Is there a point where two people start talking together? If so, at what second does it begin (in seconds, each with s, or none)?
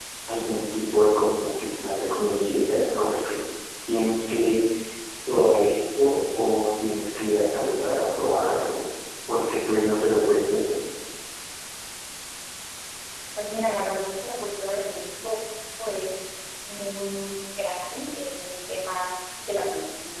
none